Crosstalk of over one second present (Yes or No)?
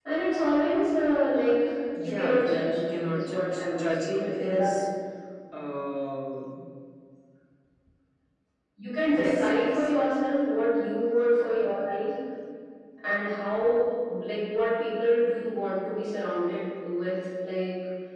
Yes